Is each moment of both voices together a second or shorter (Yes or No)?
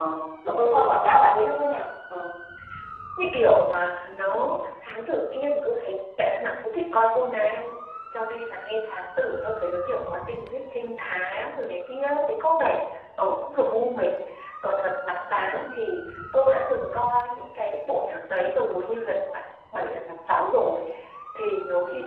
Yes